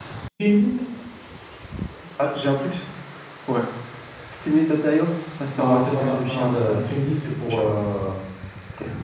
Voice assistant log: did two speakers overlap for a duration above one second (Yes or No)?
Yes